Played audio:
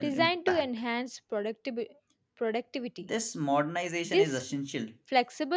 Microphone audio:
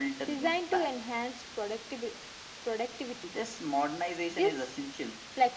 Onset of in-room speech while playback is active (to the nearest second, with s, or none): none